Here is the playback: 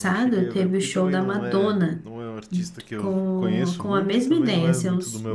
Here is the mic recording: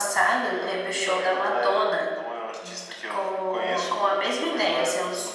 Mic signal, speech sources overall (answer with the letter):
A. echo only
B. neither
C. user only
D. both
A